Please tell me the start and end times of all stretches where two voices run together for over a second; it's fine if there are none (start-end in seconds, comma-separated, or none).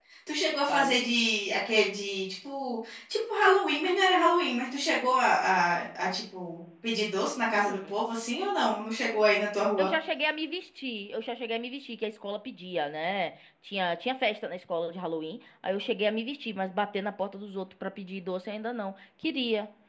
none